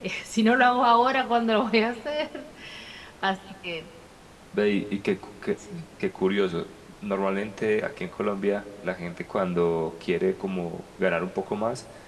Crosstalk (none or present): none